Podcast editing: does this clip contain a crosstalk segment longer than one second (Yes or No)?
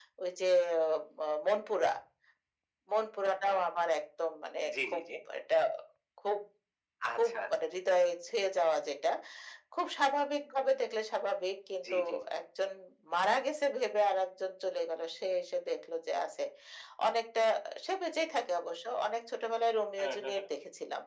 No